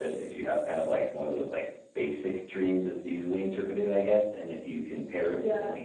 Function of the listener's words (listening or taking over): listening